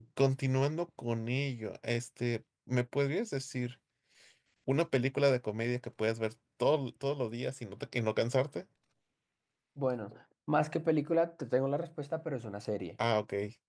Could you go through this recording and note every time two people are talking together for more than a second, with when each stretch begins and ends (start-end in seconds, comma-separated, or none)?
none